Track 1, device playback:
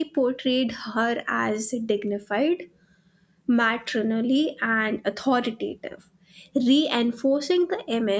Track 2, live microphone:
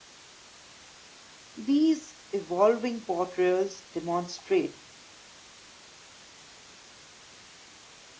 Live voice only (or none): These evolving portrayals demonstrate